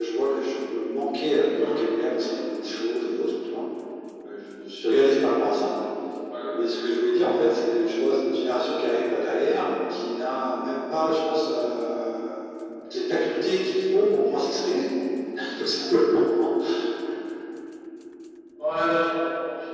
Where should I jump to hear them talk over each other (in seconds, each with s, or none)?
none